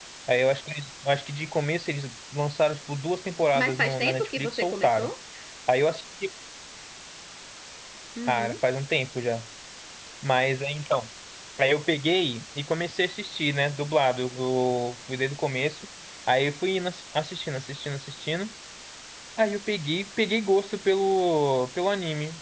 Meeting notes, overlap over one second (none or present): present